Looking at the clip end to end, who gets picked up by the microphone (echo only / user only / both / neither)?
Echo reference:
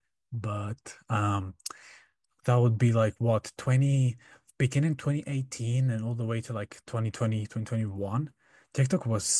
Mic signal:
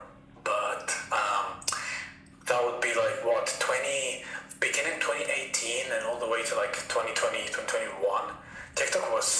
echo only